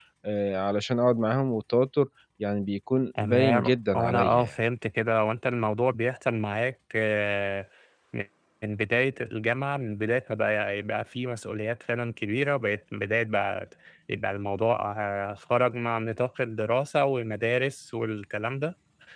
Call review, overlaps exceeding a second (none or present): present